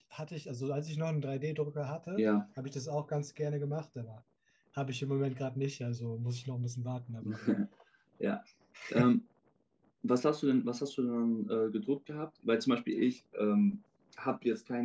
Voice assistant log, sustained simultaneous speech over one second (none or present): none